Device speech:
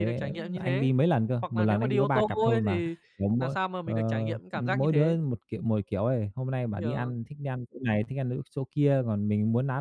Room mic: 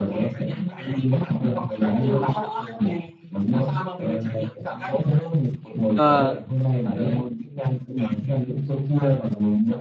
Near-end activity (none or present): present